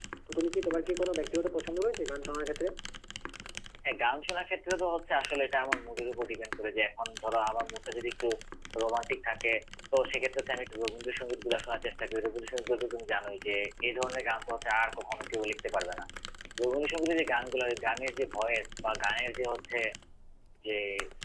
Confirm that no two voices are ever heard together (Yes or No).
Yes